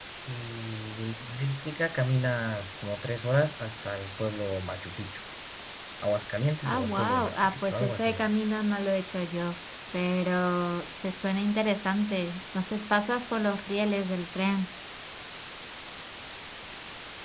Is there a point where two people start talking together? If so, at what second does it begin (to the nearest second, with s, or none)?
7 s